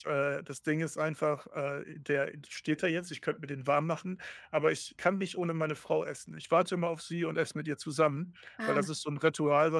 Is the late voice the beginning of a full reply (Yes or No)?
No